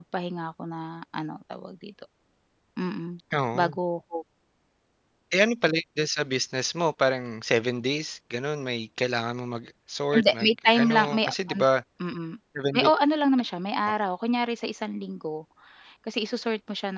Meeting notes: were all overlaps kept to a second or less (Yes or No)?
No